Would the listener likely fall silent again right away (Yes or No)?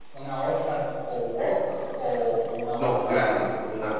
No